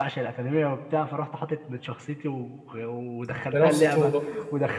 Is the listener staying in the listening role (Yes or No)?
Yes